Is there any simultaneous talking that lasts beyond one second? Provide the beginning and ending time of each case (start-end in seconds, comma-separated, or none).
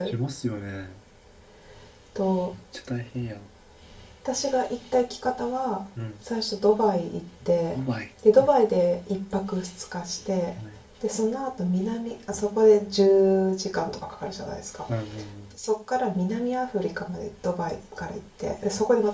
none